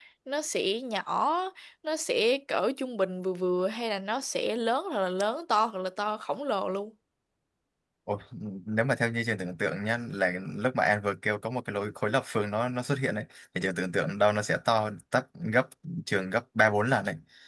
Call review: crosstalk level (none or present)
none